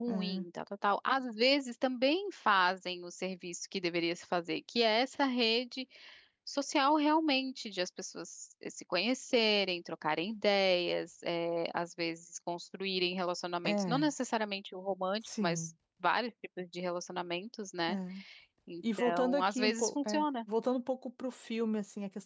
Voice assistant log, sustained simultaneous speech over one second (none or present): present